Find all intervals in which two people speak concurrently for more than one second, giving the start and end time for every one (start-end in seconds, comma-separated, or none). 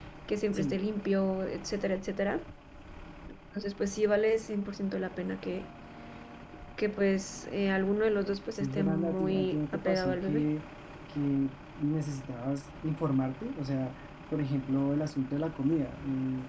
8.6-10.5